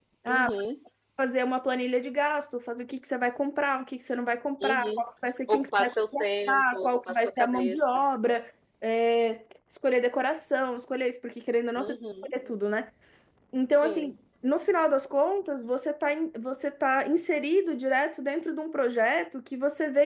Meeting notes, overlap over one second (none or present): present